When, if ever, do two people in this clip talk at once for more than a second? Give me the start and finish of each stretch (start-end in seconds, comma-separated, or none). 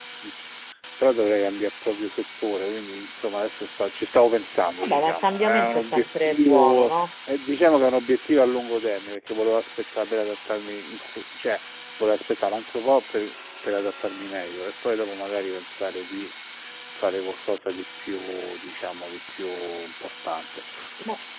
4.8-6.9